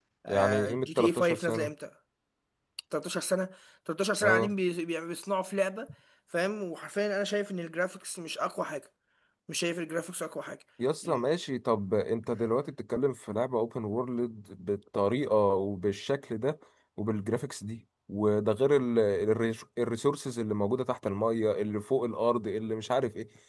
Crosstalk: present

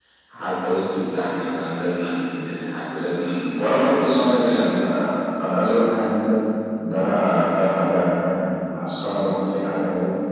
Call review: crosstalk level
present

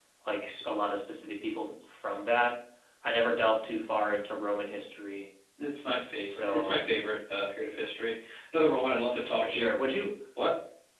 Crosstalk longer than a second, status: none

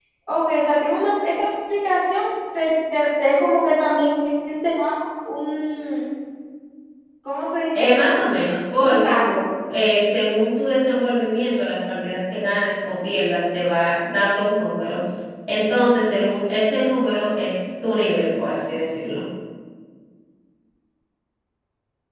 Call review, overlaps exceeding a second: none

